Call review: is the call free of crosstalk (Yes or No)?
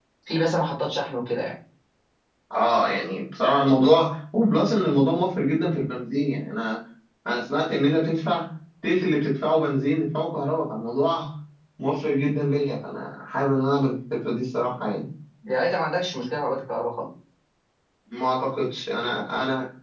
Yes